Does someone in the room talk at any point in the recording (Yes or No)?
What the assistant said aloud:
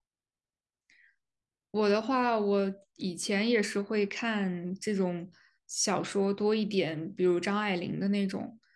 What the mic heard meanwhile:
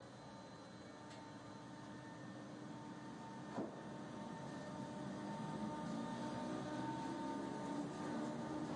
No